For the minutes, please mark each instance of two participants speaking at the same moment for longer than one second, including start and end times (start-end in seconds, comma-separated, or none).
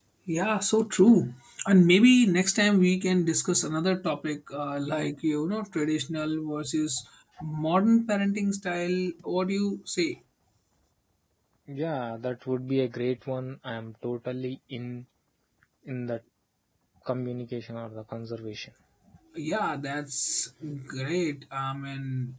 none